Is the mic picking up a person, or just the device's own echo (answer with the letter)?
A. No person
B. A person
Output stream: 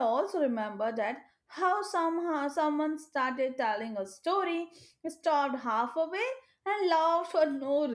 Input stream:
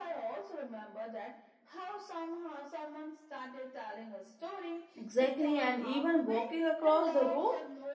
B